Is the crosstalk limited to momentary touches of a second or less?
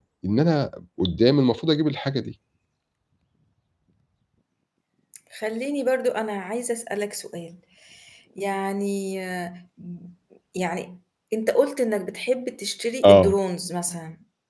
Yes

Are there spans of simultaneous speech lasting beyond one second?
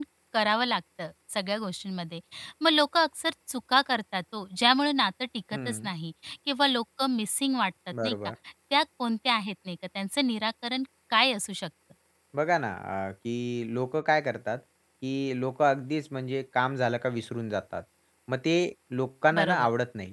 No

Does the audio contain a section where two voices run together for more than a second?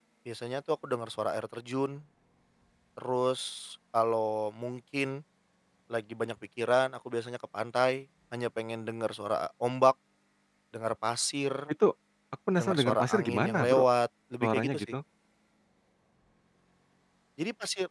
Yes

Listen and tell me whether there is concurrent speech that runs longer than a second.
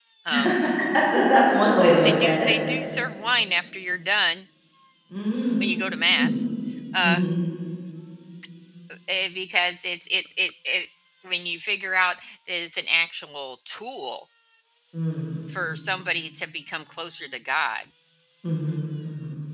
No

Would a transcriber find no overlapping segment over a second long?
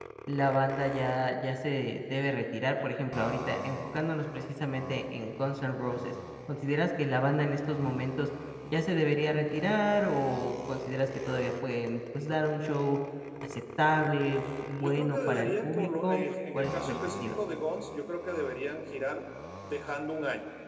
No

